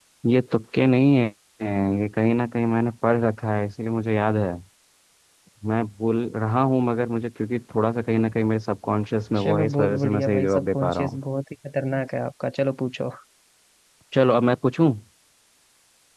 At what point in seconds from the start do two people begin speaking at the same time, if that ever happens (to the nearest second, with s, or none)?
9 s